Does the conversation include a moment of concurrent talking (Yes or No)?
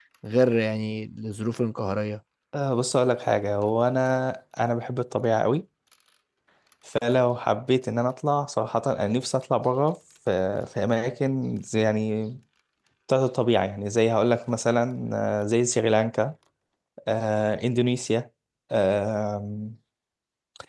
No